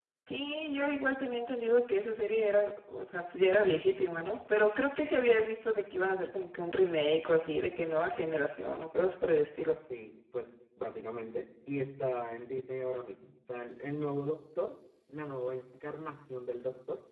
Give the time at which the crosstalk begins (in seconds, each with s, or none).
none